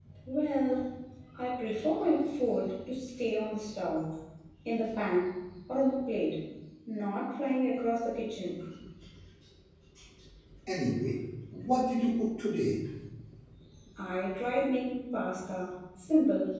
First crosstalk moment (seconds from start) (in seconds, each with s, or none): none